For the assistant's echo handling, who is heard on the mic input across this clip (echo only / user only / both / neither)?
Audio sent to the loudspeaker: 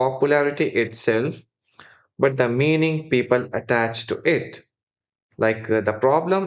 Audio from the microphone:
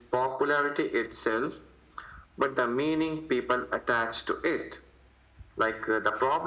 echo only